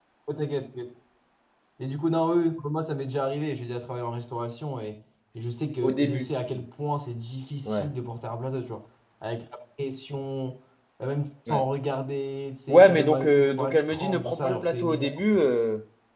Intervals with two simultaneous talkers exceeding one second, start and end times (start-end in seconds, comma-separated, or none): 12.7-15.4